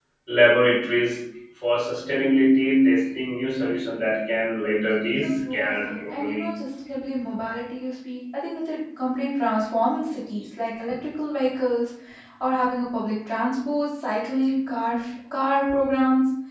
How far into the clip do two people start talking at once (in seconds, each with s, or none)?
5.2 s